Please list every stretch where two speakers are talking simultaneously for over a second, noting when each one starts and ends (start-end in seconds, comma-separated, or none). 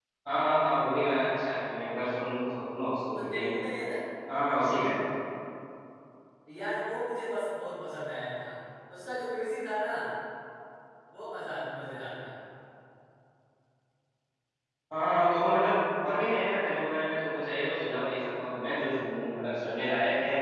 none